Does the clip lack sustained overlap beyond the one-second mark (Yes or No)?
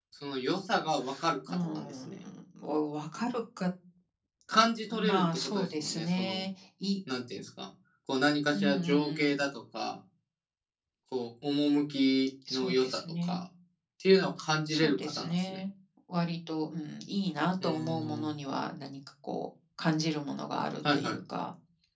No